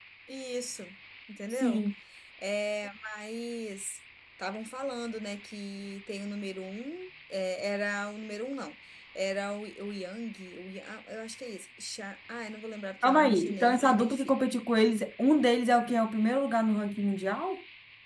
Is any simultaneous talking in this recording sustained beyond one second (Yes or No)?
Yes